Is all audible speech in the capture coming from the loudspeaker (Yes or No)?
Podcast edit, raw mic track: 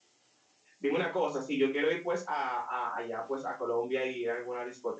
No